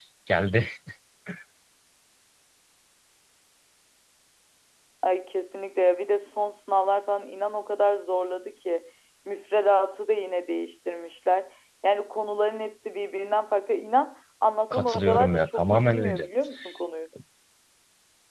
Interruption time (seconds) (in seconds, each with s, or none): 14.7 s